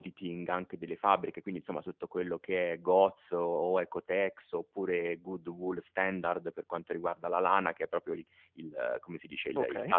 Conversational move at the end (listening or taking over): listening